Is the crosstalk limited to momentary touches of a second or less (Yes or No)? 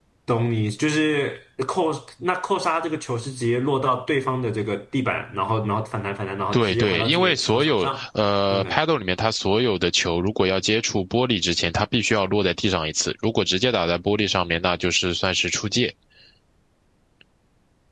No